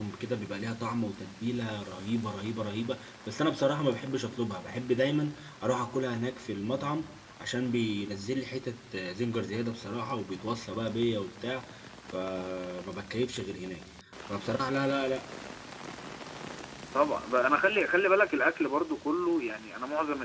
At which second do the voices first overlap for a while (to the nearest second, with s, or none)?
none